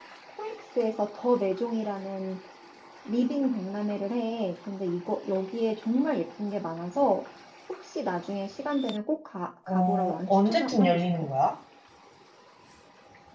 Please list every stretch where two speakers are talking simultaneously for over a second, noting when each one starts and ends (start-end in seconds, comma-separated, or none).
9.7-11.3